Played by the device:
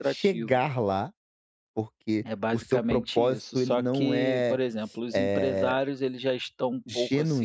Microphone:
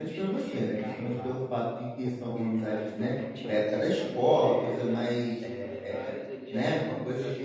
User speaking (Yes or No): Yes